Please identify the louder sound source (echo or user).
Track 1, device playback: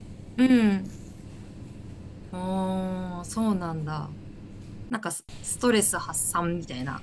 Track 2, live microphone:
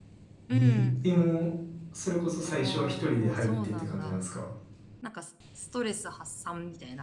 user